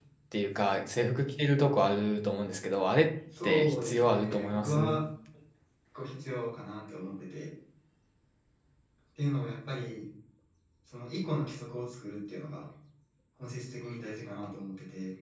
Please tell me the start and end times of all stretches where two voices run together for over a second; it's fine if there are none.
3.4-5.0

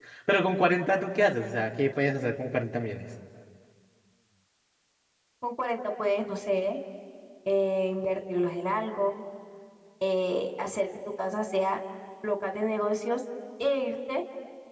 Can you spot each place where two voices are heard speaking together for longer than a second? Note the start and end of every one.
none

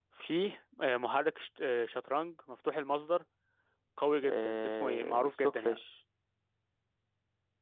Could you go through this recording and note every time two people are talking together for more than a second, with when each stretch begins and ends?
4.3-5.8

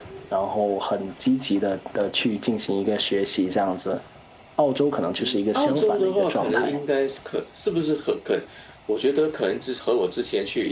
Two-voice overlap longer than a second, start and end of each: 5.2-6.8

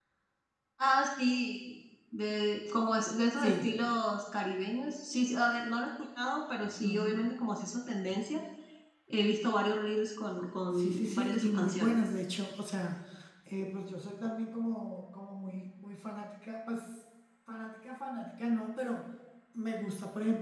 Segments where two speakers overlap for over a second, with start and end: 10.8-12.0

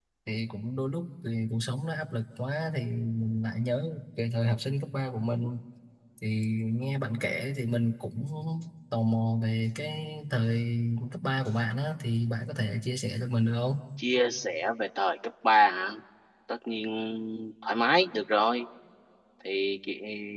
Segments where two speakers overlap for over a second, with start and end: none

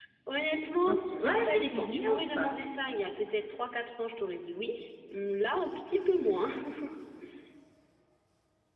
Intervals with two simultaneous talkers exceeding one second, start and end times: 0.7-2.5

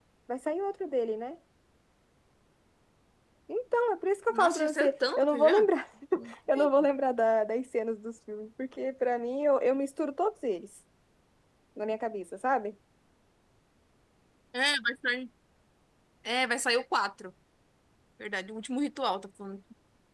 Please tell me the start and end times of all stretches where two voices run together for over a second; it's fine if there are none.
4.3-5.7

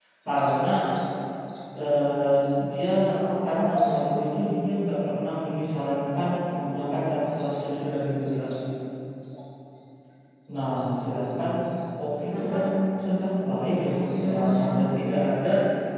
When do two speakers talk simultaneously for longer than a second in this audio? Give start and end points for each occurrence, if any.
13.7-15.1

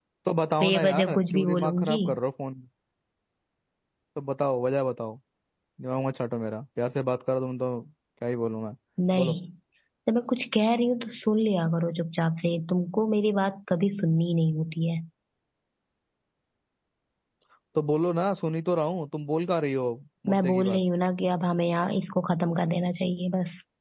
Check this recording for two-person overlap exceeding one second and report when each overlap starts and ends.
0.6-2.0

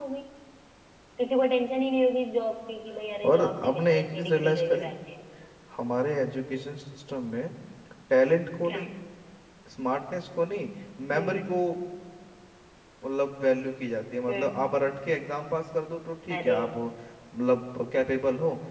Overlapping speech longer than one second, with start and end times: 3.2-4.9

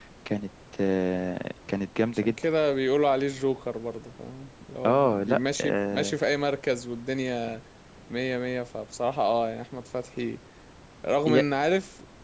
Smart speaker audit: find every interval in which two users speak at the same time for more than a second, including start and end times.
4.8-6.2

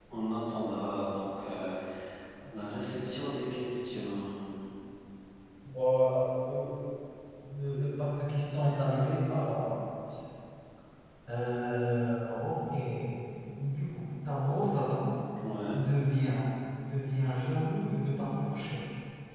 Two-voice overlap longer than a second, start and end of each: none

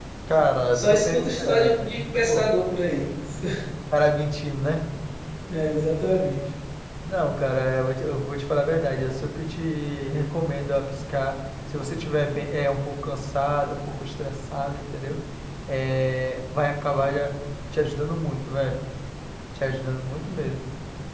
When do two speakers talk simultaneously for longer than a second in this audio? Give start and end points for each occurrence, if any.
0.7-2.5

